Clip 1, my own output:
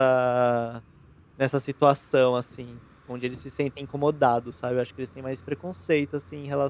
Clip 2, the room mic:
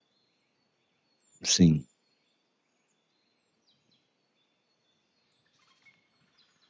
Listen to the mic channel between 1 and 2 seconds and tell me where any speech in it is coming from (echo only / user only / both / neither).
user only